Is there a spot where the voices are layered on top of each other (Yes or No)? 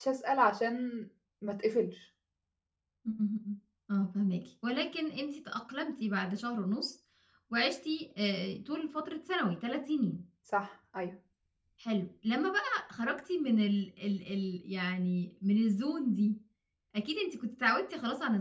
No